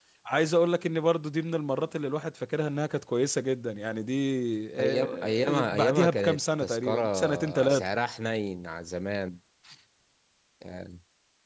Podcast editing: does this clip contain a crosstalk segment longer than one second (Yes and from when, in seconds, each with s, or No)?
Yes, from 4.8 s